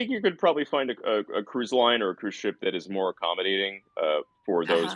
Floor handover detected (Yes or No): Yes